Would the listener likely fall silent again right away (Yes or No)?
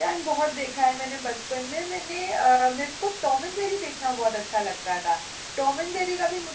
Yes